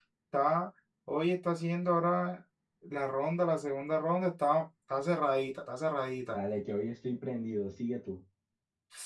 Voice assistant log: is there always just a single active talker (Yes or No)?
Yes